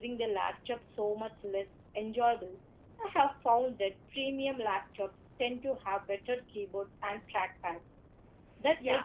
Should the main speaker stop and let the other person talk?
Yes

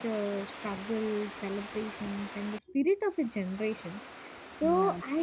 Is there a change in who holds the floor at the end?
No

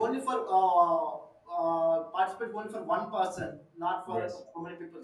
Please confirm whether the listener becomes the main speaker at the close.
No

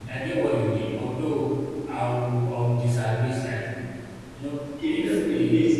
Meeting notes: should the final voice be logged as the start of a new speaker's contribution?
Yes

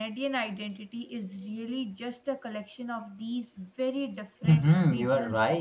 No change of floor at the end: No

